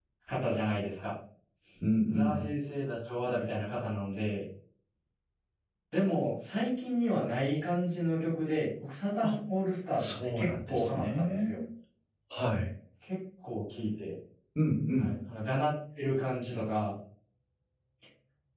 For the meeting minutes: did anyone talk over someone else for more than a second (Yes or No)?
Yes